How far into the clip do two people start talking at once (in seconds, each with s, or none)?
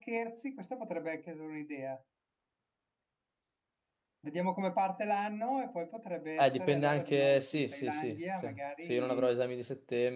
6.4 s